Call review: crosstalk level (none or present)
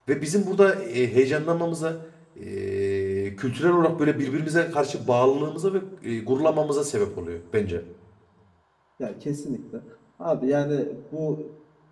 none